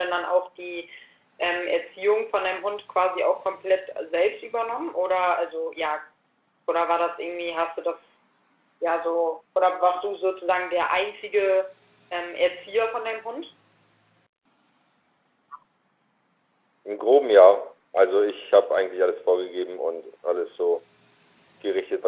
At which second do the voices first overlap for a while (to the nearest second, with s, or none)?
none